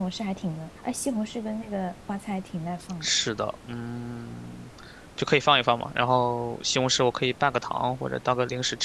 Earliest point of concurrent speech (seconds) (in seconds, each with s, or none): none